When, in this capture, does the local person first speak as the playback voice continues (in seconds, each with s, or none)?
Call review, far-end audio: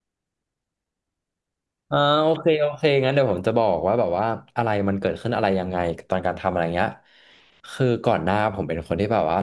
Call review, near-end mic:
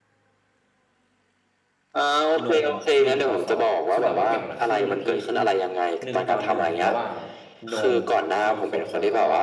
2.4 s